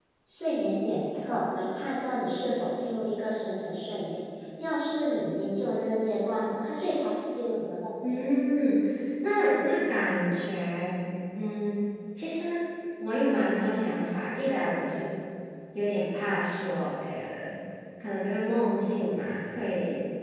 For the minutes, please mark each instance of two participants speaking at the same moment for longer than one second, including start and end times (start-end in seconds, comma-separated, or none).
none